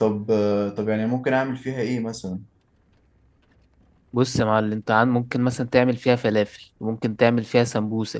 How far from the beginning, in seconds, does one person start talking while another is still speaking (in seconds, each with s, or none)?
none